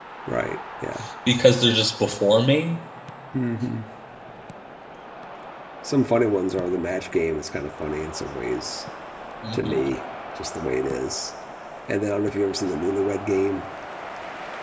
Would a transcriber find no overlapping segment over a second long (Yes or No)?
Yes